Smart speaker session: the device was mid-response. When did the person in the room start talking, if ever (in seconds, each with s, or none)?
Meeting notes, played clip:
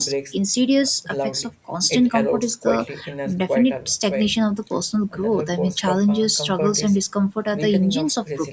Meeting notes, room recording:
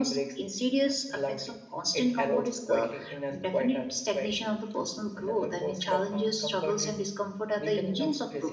none